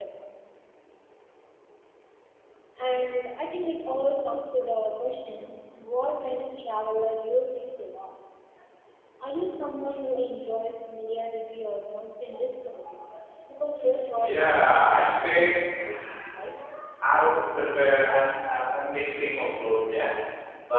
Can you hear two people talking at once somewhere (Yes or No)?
Yes